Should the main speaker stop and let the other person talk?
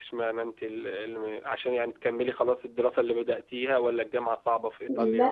Yes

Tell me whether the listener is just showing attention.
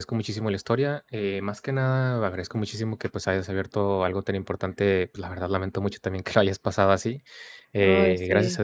Yes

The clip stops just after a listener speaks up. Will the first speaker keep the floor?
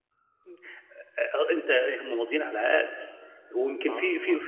Yes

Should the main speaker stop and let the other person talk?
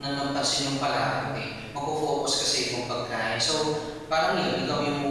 No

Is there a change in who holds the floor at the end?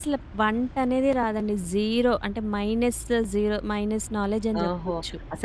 Yes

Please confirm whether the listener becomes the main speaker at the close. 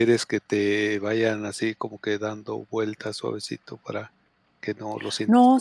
Yes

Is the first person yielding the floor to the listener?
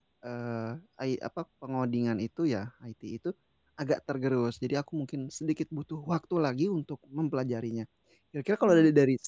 No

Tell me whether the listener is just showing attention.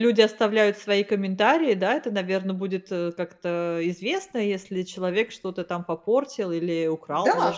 No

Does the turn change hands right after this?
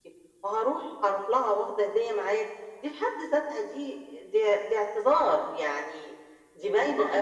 Yes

